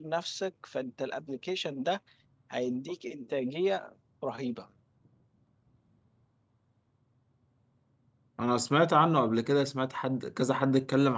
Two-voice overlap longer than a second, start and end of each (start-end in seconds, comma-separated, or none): none